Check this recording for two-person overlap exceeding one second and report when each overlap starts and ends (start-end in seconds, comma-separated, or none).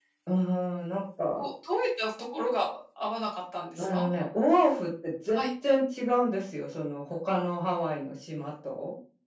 none